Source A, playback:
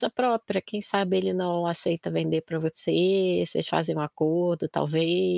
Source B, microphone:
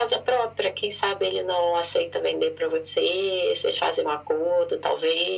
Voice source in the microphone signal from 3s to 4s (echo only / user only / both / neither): echo only